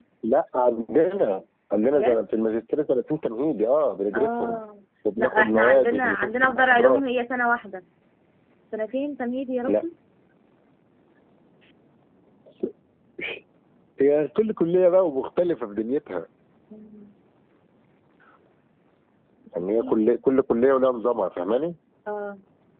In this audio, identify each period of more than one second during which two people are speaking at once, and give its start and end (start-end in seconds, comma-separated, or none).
5.2-7.0